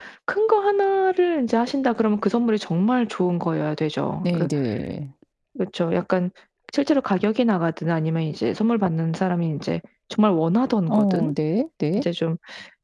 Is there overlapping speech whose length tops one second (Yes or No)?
No